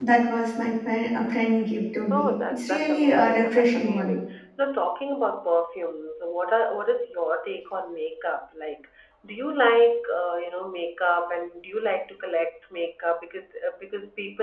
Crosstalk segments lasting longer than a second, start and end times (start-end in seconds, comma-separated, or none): 2.1-4.2